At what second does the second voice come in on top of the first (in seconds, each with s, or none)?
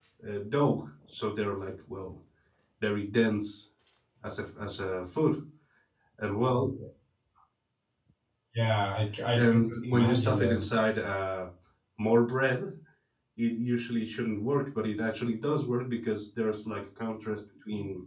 9.3 s